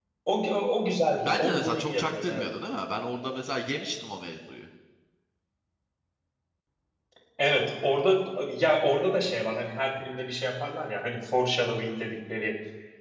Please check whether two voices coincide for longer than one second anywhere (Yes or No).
Yes